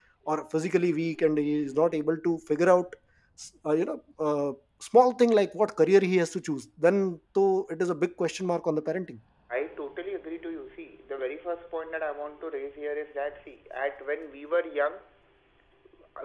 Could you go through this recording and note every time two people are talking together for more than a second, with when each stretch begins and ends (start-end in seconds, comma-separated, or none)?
none